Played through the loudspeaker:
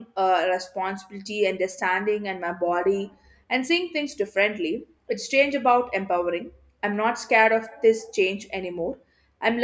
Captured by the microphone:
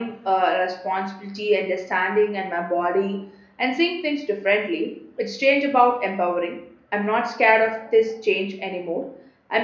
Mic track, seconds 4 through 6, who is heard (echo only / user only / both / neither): echo only